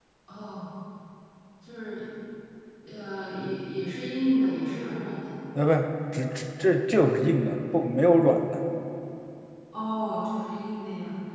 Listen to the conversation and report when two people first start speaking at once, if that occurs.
none

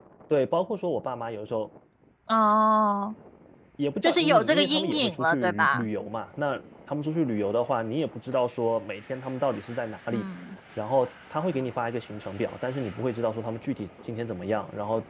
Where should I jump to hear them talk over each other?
4.0 s

